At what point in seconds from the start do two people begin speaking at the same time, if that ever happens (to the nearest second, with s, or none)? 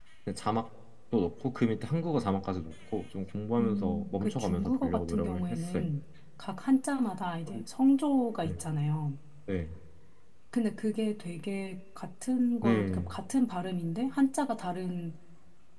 4 s